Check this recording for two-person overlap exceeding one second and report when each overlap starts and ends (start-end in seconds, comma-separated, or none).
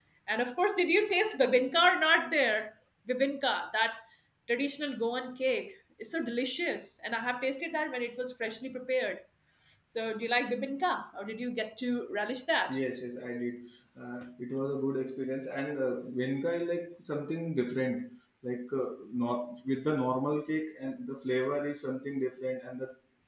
none